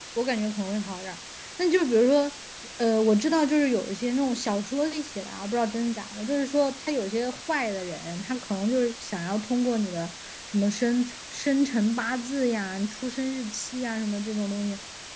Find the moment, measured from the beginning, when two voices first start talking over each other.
none

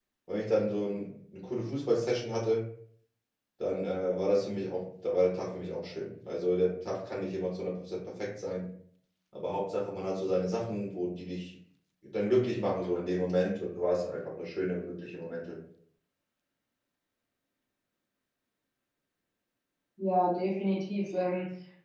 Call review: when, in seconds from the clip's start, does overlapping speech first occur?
none

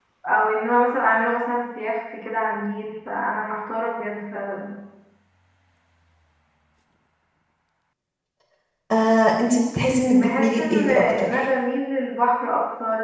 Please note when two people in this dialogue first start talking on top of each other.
10.1 s

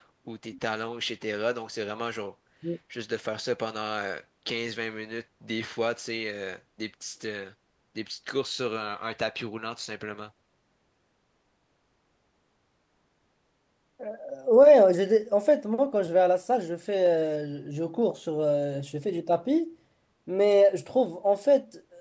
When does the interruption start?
none

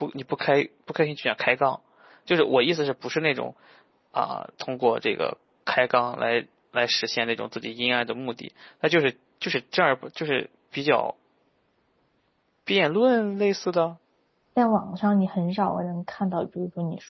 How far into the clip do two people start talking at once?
none

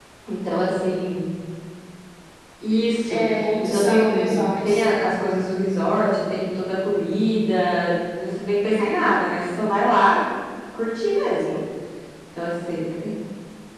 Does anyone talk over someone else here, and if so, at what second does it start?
3.1 s

